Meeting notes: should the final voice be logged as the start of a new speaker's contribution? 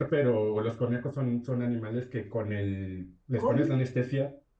No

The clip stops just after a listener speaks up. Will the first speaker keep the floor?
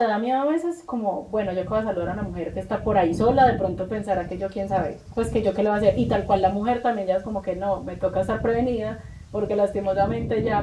Yes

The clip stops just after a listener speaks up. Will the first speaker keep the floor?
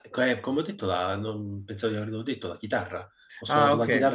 Yes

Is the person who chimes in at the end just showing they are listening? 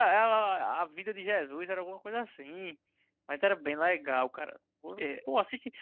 Yes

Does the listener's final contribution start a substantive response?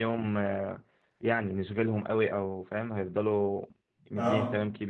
No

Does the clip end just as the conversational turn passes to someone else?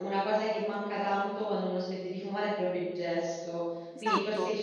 No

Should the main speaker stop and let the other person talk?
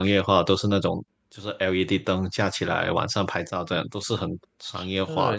Yes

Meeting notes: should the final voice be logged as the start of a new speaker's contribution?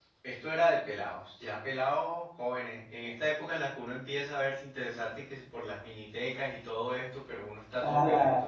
Yes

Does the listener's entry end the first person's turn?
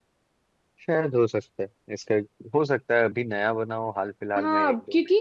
Yes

